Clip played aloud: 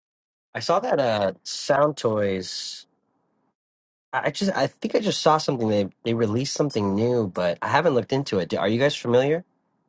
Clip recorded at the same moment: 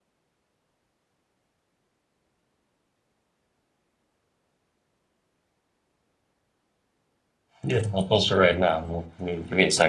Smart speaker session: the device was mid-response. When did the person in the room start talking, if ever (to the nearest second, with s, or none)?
8 s